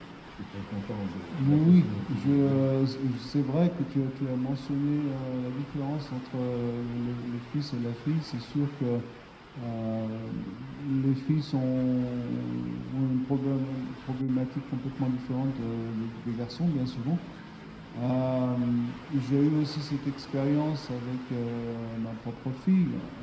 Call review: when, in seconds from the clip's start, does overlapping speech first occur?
1.3 s

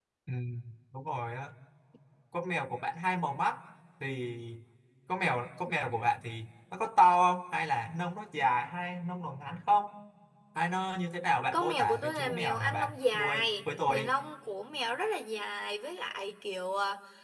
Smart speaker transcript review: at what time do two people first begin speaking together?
11.5 s

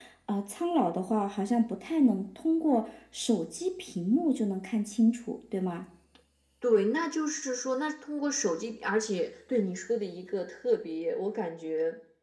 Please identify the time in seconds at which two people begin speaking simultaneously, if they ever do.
none

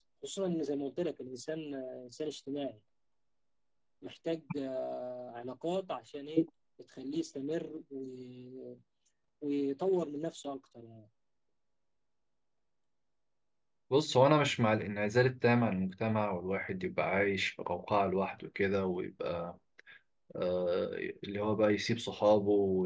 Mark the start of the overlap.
none

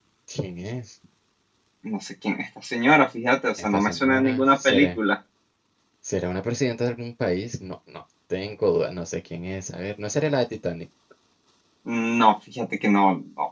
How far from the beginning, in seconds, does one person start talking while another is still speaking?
3.6 s

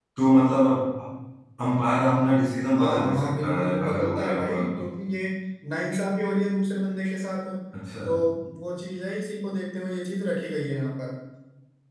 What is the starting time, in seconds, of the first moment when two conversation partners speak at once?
2.8 s

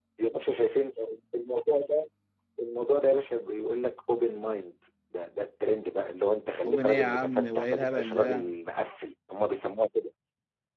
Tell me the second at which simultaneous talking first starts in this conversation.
6.6 s

